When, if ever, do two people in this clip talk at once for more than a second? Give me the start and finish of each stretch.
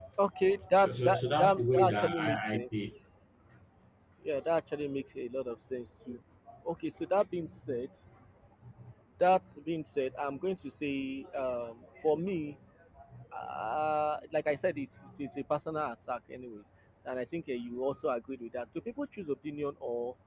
0.8-2.6

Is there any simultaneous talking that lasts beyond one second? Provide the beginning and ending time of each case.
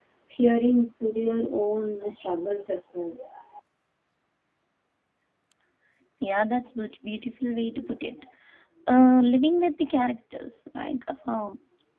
none

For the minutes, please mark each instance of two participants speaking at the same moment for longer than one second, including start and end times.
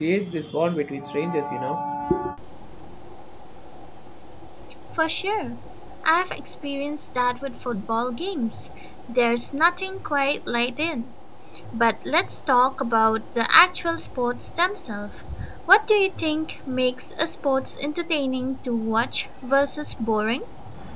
none

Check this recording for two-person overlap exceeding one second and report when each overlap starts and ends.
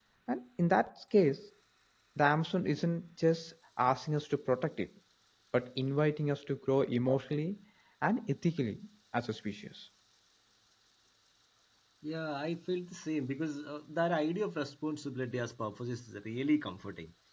none

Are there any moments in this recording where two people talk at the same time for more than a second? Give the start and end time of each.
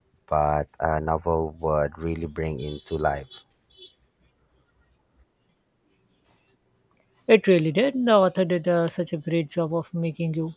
none

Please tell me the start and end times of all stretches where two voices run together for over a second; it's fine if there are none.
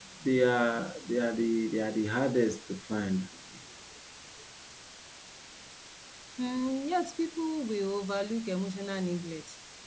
none

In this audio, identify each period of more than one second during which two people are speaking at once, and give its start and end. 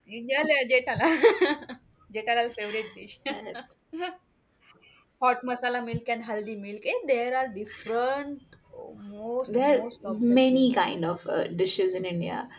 9.5-10.7

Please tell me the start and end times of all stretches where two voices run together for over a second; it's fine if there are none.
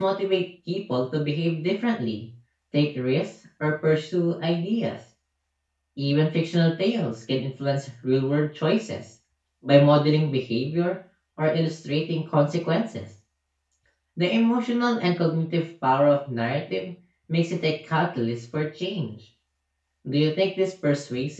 none

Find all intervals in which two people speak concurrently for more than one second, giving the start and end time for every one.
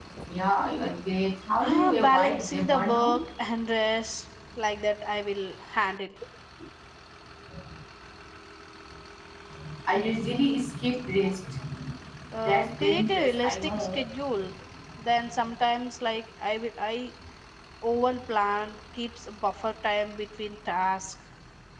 1.6-3.2, 12.4-14.0

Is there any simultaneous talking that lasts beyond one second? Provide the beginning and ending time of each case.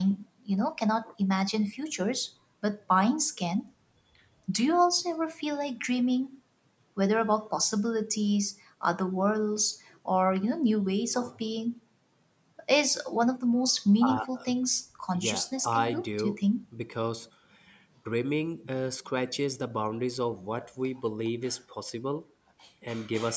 15.1-16.4

